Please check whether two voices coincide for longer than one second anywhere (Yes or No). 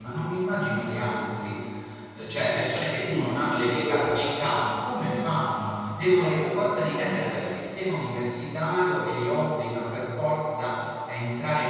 Yes